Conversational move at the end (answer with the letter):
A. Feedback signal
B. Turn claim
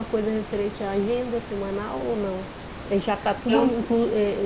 A